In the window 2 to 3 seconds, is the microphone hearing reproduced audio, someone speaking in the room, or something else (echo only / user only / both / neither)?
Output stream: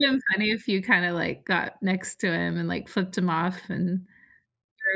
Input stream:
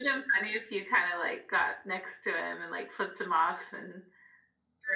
echo only